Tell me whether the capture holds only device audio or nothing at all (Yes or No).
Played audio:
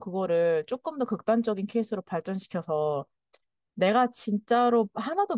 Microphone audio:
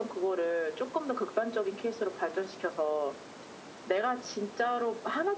Yes